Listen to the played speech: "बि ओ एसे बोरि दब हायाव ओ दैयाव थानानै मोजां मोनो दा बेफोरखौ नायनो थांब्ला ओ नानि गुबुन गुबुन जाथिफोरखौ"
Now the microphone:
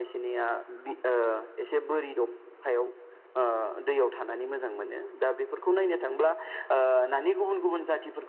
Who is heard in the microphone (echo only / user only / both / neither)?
echo only